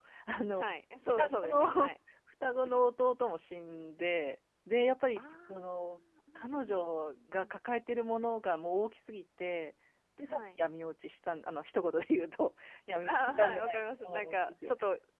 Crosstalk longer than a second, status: present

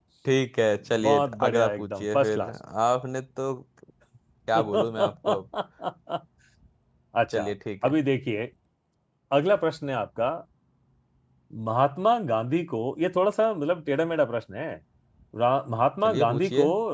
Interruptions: present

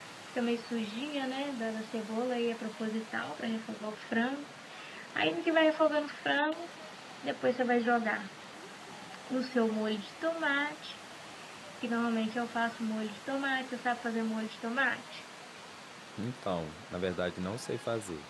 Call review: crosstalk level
none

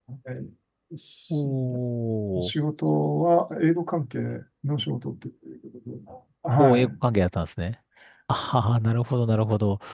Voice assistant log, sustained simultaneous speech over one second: none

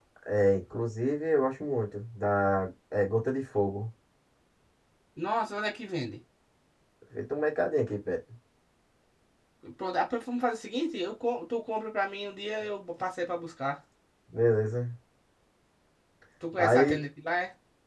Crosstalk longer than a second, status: none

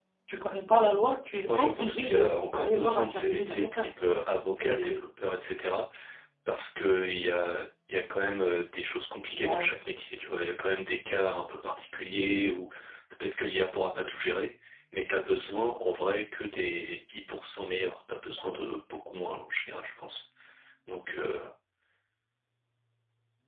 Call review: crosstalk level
present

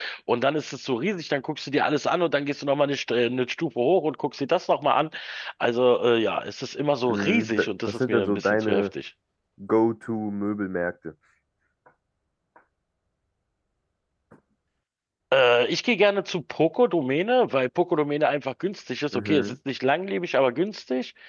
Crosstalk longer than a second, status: present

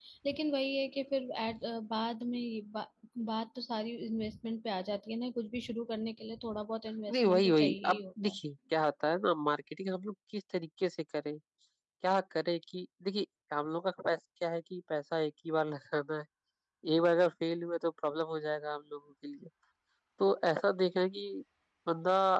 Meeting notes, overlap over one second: present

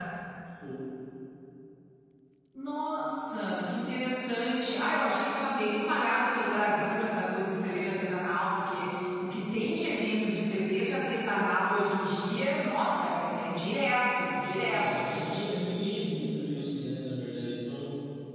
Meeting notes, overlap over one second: none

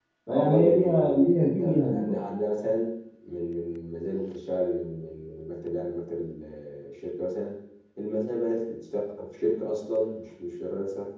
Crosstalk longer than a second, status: present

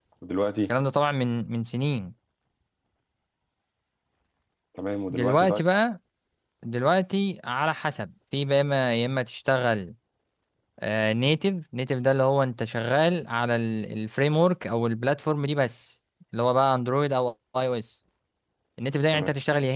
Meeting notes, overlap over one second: none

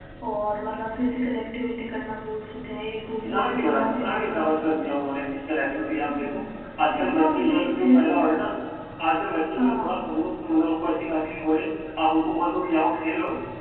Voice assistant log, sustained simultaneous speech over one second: present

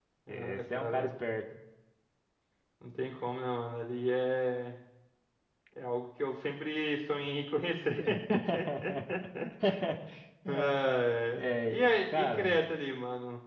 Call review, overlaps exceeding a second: present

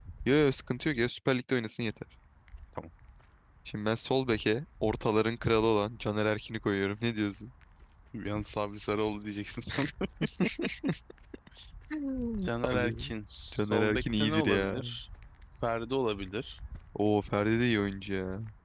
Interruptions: present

